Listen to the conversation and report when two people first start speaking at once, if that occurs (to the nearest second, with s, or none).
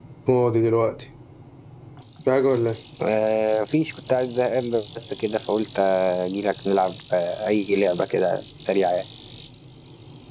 none